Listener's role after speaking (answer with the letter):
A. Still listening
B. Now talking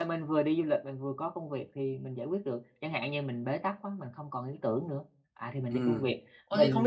B